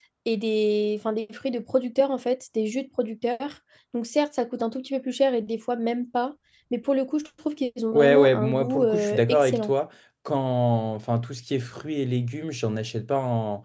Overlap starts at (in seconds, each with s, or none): 7.9 s